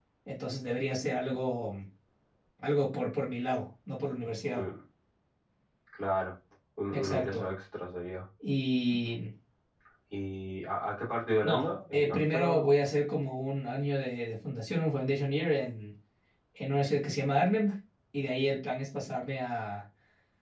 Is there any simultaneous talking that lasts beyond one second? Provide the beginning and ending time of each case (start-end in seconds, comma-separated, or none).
11.4-12.7